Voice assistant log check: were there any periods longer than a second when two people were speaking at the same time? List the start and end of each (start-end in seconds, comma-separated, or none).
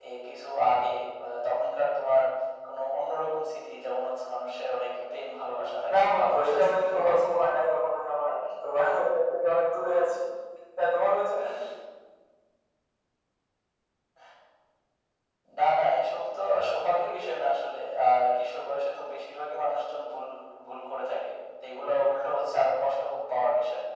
5.9-7.5